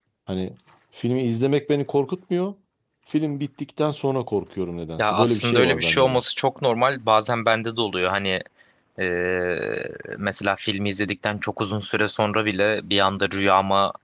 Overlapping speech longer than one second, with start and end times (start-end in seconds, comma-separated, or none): 5.0-6.2